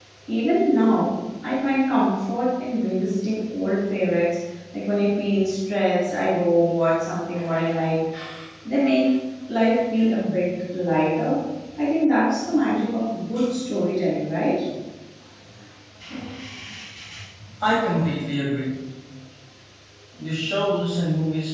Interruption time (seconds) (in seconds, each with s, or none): none